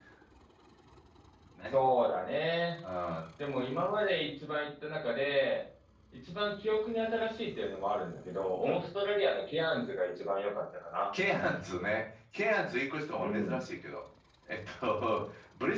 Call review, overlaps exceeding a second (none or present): none